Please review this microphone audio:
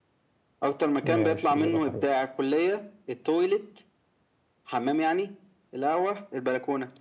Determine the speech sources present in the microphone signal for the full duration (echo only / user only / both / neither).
both